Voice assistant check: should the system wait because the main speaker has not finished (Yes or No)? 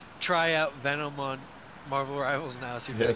No